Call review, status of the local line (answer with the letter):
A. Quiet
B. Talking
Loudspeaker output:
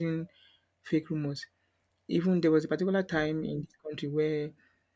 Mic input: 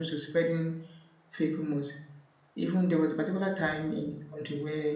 A